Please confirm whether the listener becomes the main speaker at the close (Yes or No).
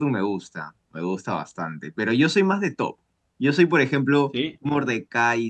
No